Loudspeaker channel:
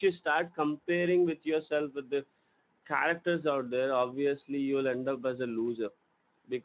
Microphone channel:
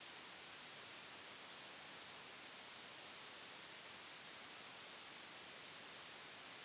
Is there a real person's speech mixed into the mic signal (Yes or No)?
No